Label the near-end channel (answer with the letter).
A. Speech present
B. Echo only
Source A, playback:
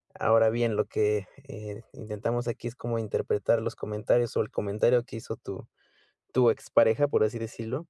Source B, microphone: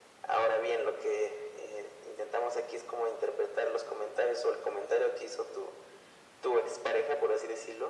B